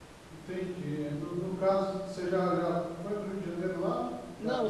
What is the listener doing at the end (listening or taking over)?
taking over